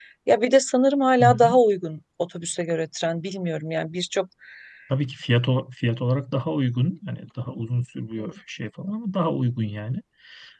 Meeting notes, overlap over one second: none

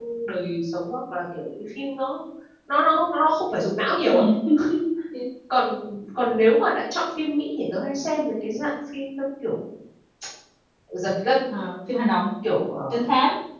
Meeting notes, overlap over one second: none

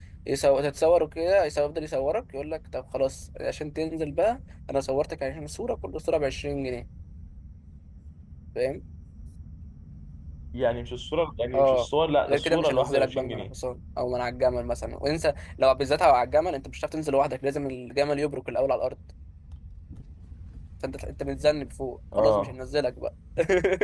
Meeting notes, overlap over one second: present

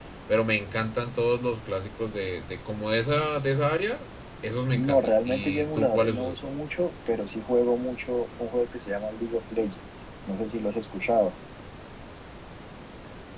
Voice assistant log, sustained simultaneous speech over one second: present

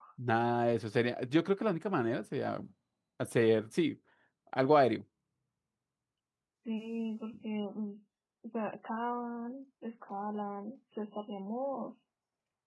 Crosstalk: none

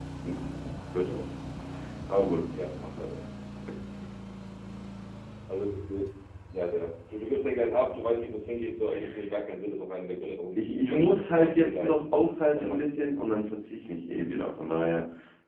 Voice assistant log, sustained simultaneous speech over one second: present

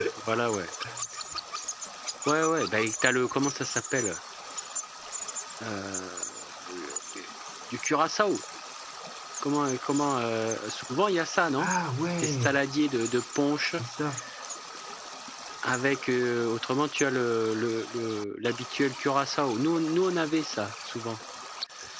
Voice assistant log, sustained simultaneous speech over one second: none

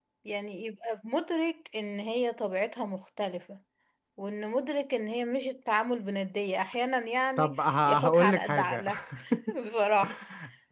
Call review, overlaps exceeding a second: present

